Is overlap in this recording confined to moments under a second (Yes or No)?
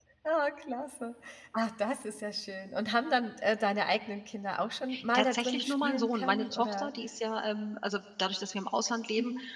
No